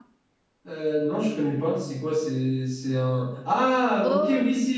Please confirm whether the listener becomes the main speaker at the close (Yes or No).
No